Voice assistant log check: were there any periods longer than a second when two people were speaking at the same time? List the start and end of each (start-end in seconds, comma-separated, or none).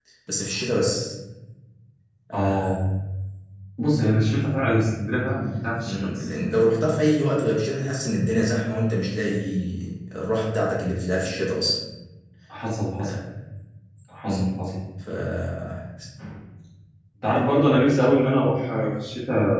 none